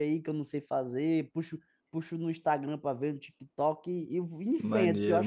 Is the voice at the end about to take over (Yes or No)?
Yes